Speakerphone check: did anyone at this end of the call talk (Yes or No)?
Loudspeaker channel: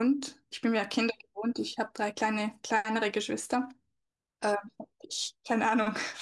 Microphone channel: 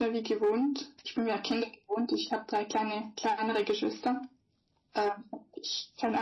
No